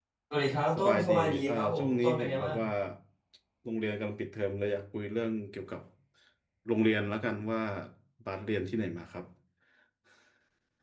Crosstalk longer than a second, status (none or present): present